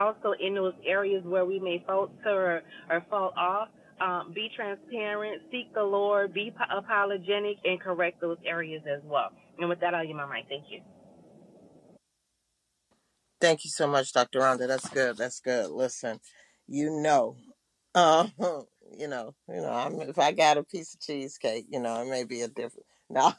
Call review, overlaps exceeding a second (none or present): none